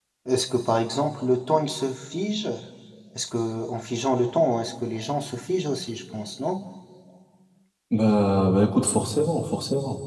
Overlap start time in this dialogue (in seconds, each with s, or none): none